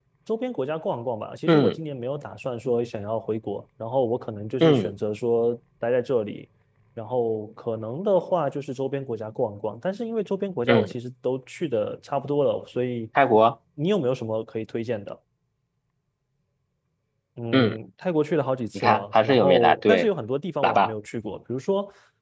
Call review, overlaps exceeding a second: present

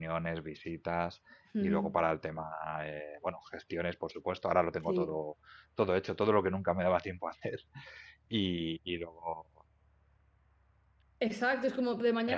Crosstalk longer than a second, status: none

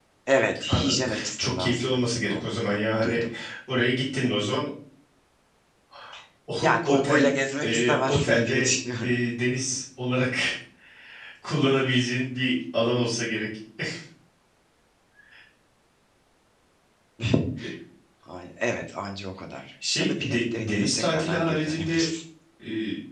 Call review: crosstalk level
present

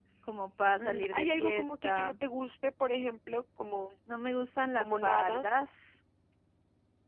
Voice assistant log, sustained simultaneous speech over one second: present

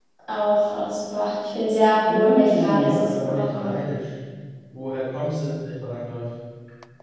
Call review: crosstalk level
present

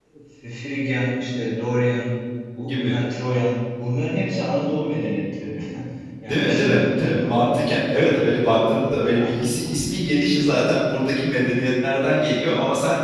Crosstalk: present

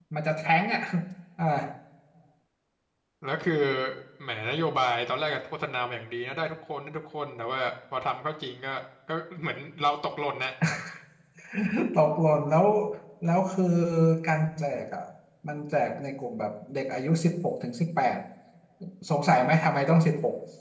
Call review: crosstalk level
none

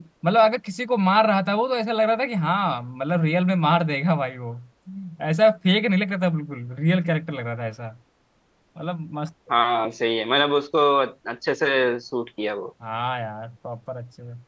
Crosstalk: none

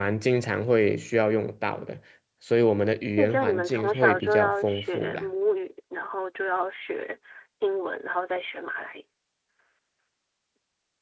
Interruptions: present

